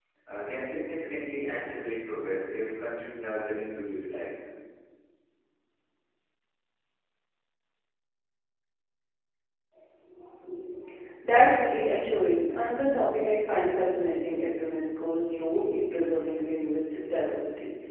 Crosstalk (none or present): none